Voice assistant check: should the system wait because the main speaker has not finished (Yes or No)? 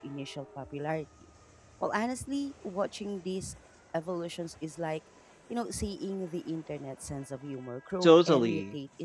No